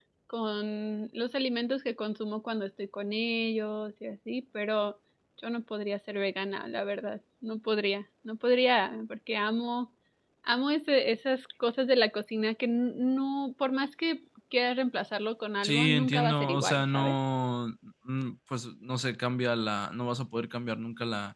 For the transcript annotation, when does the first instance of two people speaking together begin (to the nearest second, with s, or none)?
16 s